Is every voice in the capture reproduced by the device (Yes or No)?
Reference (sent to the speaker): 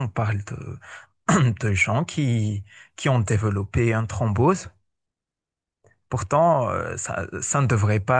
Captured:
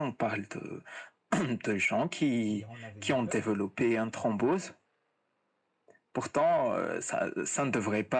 No